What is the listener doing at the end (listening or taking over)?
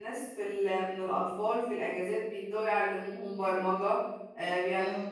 listening